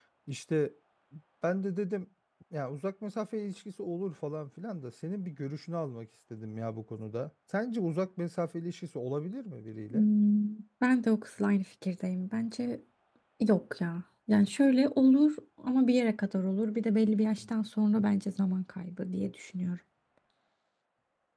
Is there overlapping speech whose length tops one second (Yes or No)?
No